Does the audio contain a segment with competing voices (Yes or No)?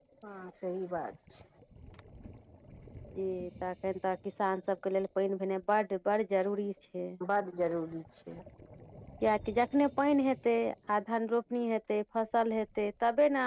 No